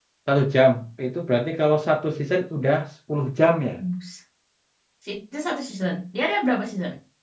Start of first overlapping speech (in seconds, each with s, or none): none